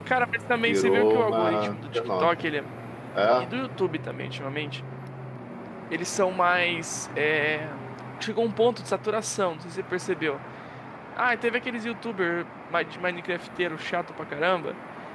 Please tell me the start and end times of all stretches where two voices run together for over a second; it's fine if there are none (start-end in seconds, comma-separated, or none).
0.7-2.3